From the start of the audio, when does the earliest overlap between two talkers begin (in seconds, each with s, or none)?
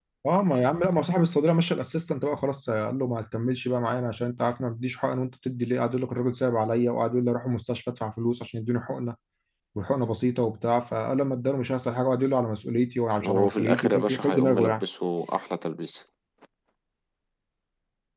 13.2 s